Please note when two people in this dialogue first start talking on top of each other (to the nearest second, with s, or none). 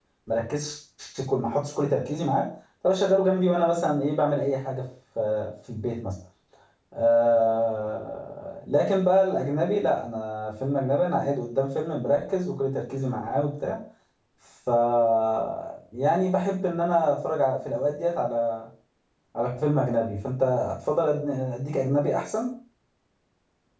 none